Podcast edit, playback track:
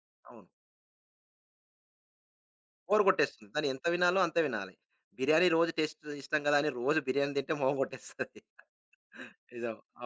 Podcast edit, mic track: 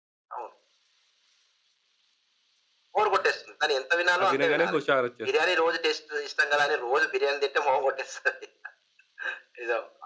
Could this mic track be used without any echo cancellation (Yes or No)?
No